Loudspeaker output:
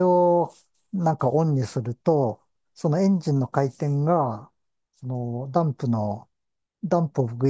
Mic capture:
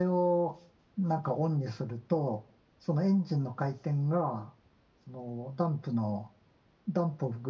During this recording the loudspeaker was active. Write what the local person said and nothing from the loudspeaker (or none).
none